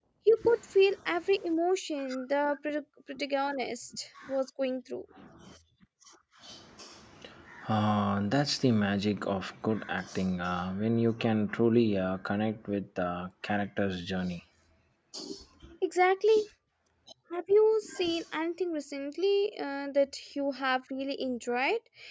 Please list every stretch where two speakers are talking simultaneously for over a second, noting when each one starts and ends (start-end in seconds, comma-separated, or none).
none